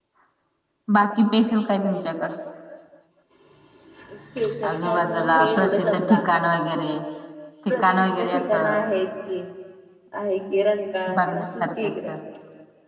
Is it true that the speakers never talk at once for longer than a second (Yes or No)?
No